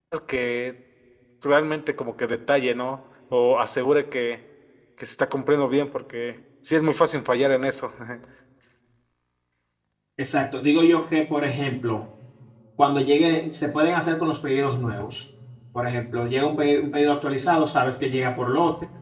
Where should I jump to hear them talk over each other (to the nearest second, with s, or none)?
none